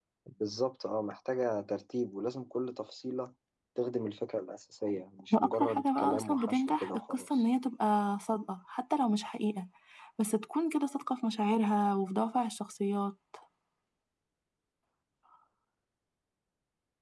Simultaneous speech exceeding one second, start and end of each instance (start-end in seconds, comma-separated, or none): 5.3-7.4